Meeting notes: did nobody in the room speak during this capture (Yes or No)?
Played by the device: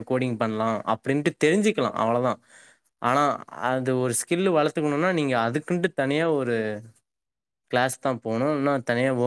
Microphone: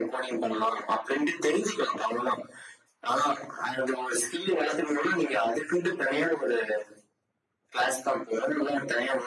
Yes